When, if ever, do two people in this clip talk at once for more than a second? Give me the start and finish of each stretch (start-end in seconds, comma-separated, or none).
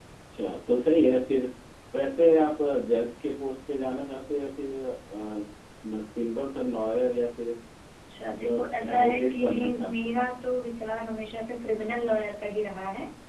8.3-10.1